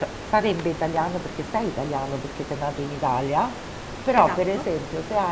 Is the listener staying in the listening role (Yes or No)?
Yes